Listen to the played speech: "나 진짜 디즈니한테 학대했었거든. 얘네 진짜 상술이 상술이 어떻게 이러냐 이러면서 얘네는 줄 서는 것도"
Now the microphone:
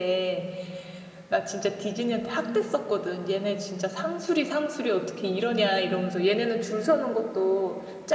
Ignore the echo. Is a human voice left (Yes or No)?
No